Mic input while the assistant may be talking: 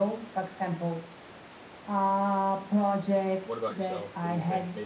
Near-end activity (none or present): present